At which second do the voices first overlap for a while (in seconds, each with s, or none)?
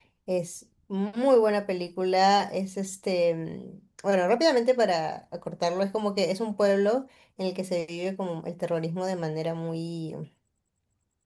none